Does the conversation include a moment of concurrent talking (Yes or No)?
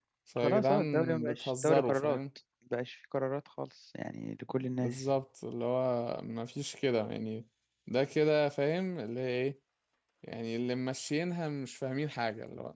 Yes